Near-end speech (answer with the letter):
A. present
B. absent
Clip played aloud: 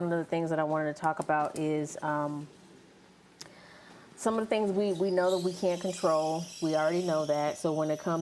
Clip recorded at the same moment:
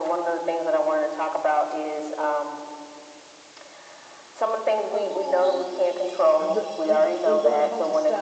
A